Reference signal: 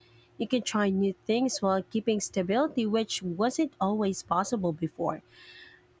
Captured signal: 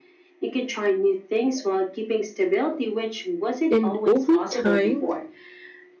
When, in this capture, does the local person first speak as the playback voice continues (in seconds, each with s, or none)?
3.7 s